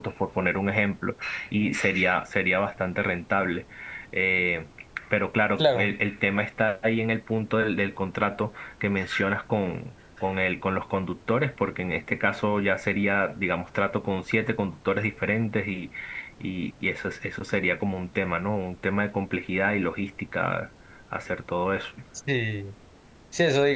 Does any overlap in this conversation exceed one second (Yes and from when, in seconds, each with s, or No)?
No